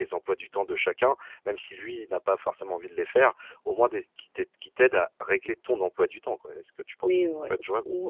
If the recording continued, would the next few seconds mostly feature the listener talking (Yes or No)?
Yes